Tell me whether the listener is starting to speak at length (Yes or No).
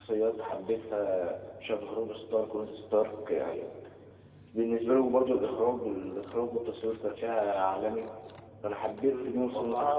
Yes